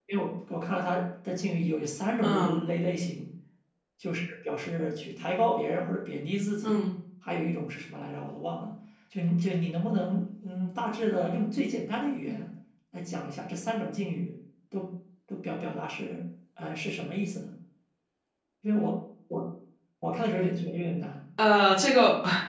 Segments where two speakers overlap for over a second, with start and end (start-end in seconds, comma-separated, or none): none